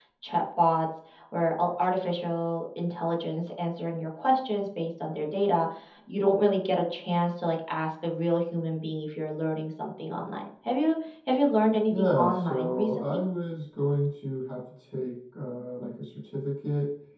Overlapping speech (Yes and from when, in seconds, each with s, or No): Yes, from 11.9 s